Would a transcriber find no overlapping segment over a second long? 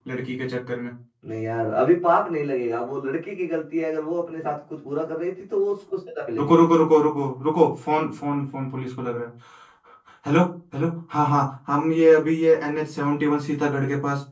Yes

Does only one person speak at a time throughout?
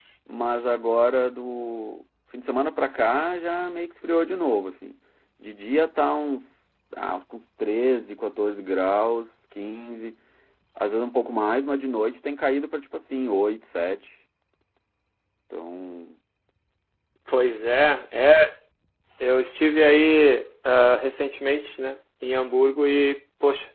Yes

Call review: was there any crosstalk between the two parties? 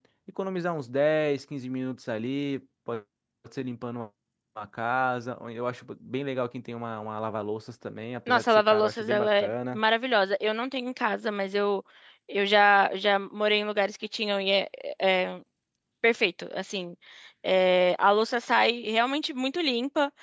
Yes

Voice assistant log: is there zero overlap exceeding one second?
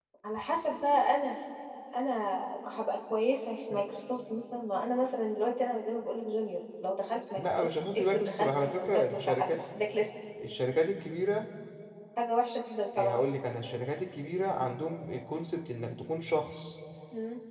No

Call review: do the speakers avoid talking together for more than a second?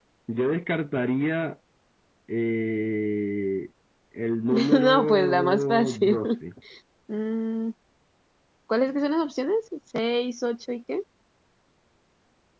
No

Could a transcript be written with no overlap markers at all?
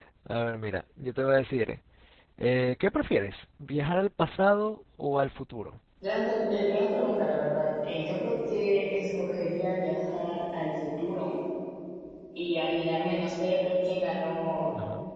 Yes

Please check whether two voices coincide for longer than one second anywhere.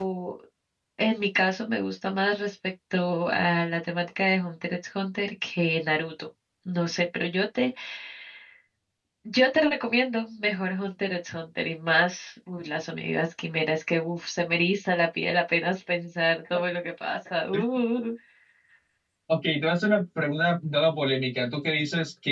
No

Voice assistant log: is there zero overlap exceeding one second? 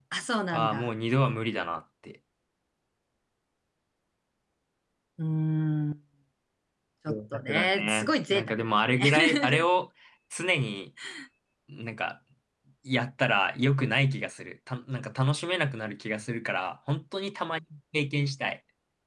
No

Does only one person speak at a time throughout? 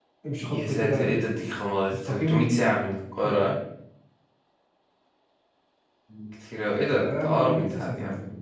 No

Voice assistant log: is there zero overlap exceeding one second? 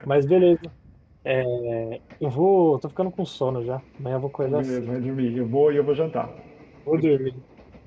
Yes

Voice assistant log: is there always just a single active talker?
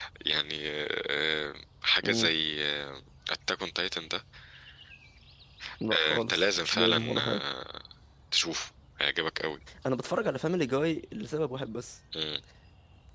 No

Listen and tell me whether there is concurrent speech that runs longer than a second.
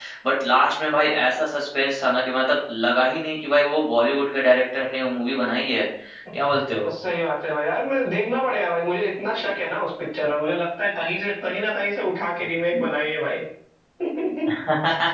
No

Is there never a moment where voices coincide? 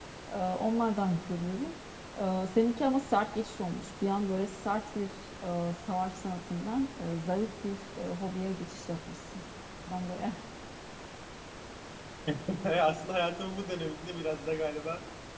Yes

